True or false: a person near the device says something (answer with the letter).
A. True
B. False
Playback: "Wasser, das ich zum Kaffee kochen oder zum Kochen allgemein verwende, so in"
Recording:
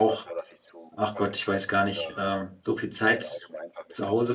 A